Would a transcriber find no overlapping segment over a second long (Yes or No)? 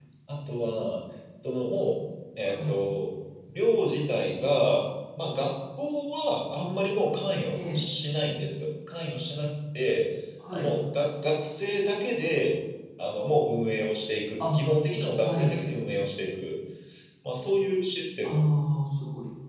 Yes